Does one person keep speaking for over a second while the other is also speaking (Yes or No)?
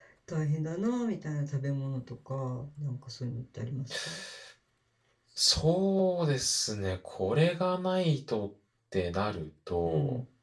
No